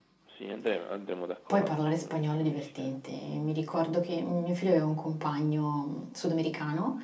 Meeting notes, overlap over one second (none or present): present